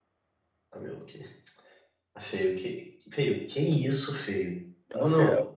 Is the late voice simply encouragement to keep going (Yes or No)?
No